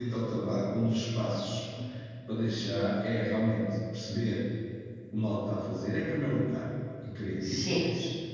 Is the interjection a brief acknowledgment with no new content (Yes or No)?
Yes